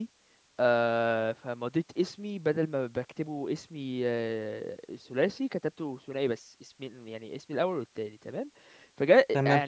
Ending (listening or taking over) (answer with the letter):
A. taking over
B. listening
B